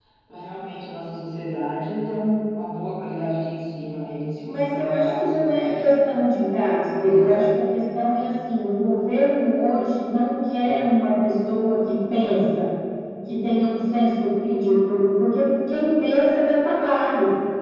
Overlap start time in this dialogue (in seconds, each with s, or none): 4.5 s